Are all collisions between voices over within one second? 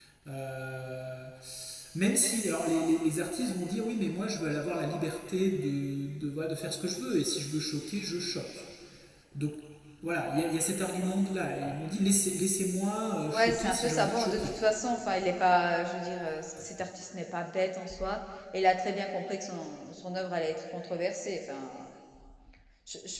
No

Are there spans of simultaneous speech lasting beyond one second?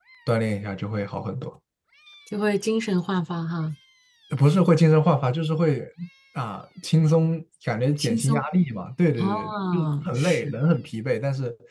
Yes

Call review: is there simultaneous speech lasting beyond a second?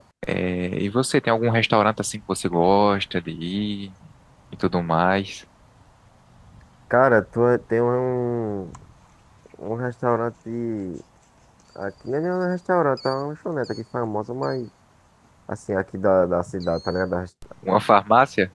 No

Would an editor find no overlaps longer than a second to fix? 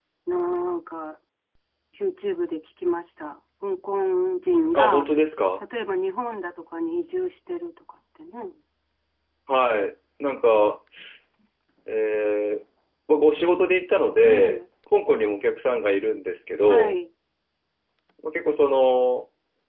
Yes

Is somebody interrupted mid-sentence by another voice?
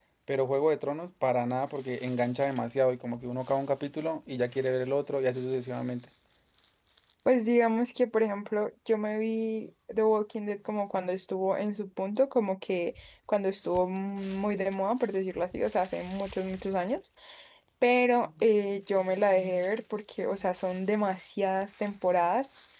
No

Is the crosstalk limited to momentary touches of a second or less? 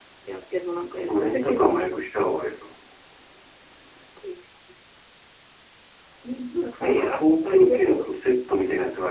No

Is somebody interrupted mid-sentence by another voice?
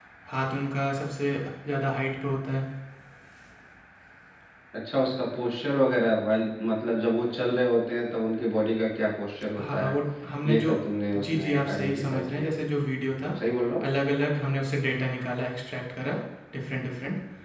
Yes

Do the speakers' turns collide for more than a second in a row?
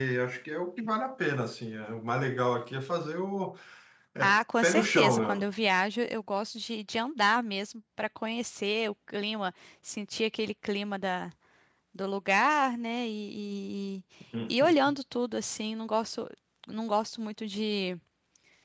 Yes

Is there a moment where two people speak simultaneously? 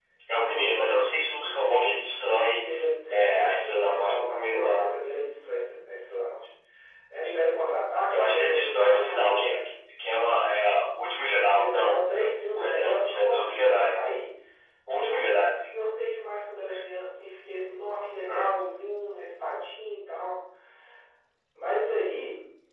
Yes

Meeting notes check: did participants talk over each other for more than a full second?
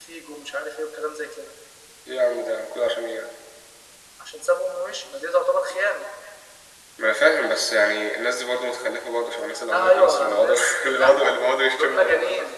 Yes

